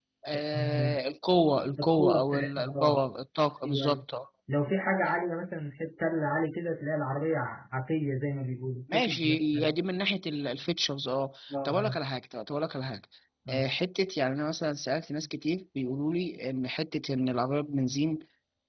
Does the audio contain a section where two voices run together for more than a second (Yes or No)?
Yes